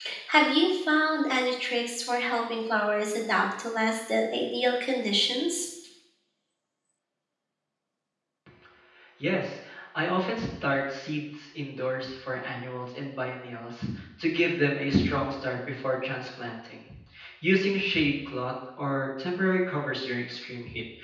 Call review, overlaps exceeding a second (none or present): none